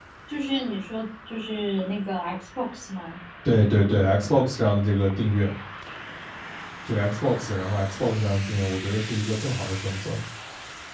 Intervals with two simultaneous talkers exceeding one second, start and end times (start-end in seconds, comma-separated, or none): none